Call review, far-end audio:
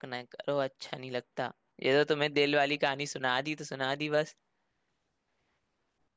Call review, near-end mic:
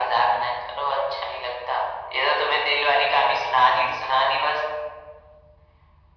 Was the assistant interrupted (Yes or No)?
No